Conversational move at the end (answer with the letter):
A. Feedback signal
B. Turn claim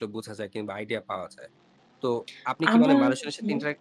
A